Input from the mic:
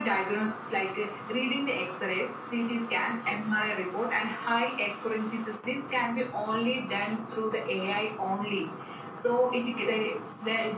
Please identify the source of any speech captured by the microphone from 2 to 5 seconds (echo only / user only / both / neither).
echo only